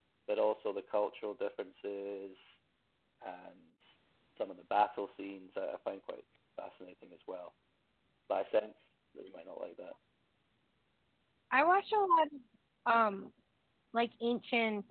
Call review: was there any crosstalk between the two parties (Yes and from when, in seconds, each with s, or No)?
No